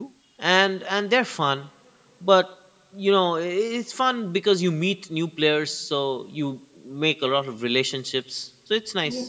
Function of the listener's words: taking over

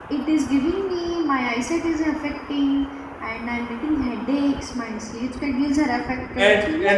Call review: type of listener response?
taking over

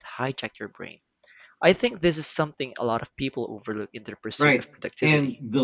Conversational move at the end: taking over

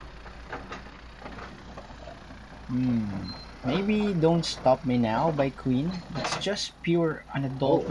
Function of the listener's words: taking over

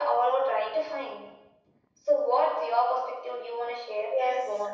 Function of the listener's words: taking over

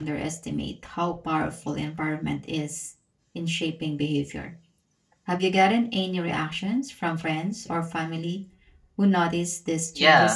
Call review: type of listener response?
taking over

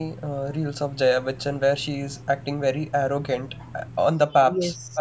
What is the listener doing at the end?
taking over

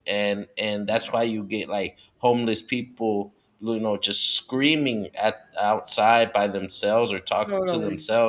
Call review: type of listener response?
listening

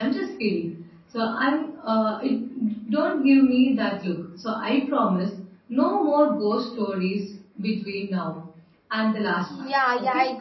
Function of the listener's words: taking over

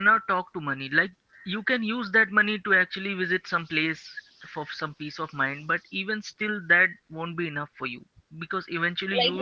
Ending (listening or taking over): taking over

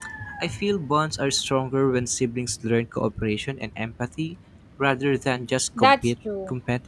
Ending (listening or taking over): taking over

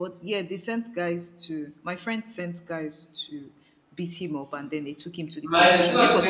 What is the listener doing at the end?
taking over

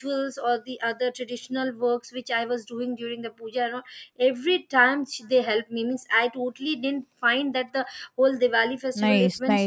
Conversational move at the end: taking over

